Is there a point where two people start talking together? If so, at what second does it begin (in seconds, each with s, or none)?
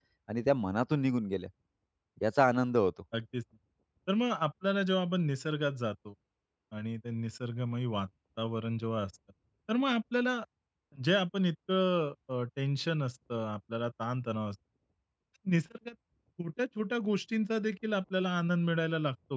none